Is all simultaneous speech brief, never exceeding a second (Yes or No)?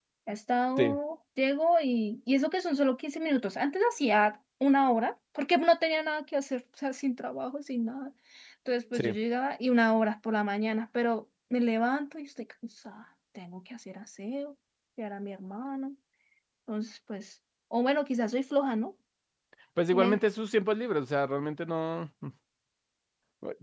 Yes